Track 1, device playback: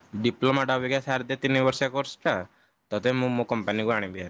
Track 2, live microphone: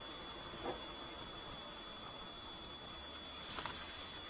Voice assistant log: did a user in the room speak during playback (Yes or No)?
No